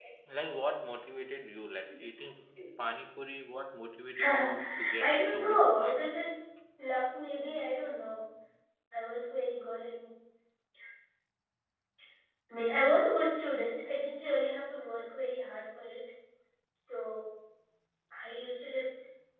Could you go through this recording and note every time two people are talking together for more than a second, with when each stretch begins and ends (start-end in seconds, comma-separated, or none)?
4.2-6.0